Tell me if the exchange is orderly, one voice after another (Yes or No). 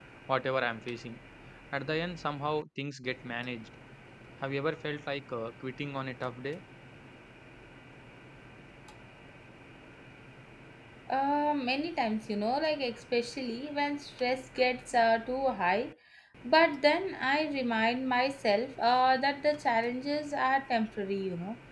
Yes